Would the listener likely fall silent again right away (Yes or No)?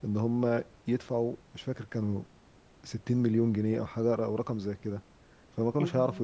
Yes